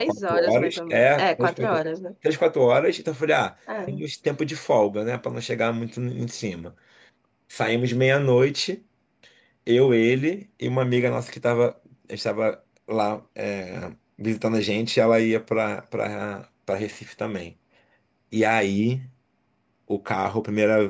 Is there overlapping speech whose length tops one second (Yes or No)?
Yes